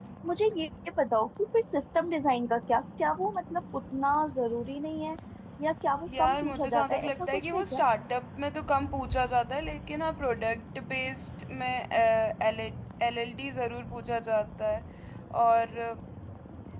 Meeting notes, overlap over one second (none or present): present